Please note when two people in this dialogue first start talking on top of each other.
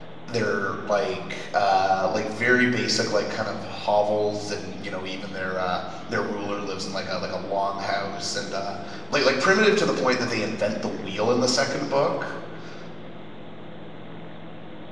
none

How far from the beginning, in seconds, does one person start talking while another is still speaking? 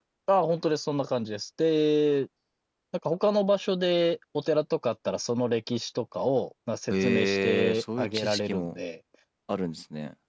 7 s

